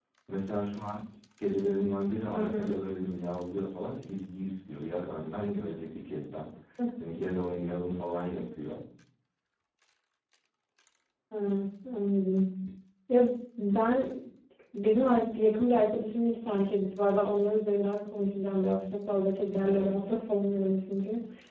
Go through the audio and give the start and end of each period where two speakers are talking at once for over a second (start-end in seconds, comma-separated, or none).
none